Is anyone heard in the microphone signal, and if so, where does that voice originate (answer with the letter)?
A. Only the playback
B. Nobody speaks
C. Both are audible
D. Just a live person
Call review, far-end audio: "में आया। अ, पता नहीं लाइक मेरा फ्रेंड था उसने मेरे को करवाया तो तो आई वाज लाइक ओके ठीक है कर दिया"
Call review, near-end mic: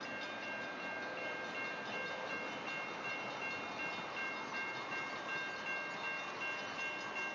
B